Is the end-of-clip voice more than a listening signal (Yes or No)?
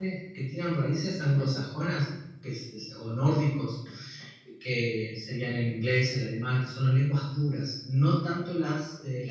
No